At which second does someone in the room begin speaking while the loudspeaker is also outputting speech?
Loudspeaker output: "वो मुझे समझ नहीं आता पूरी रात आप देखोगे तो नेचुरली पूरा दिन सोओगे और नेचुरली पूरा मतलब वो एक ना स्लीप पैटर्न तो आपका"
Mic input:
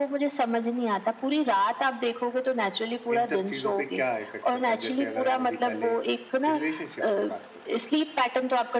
3 s

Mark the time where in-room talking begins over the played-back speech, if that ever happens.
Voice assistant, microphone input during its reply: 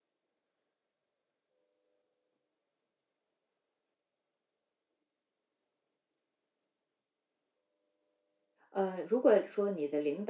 9 s

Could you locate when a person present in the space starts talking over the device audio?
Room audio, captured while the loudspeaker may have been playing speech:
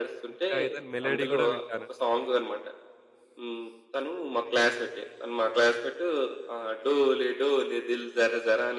0 s

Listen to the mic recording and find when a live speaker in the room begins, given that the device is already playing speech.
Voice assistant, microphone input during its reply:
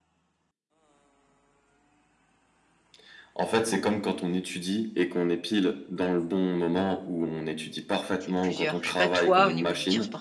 8 s

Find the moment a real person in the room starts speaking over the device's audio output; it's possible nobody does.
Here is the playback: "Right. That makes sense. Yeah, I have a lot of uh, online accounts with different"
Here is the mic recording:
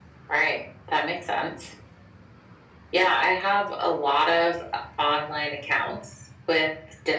none

